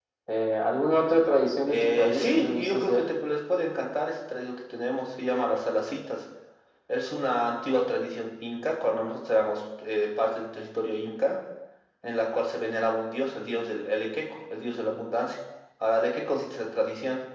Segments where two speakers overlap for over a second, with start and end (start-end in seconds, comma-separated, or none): 1.6-3.0